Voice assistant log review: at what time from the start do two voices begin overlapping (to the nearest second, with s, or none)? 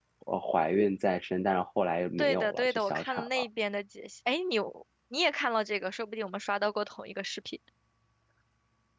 2 s